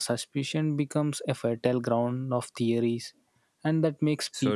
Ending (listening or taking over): listening